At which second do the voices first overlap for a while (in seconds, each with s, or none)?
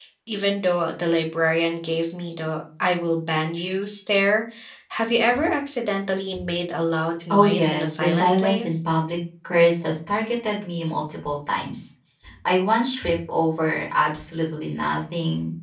7.3 s